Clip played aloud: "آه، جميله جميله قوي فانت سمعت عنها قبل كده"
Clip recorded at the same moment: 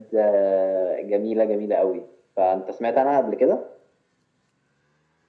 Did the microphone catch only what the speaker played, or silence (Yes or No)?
Yes